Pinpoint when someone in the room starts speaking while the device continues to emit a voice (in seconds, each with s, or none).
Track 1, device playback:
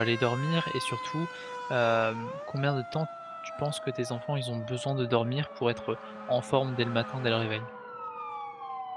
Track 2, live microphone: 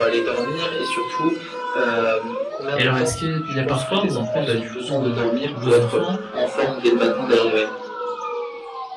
2.8 s